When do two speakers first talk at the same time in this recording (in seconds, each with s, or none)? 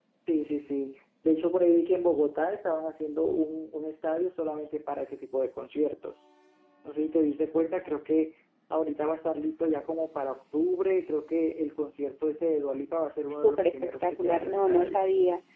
13.3 s